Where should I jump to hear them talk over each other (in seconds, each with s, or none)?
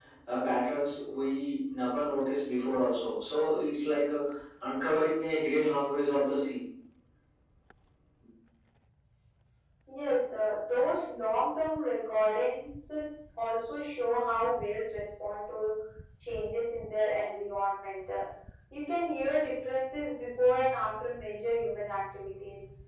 none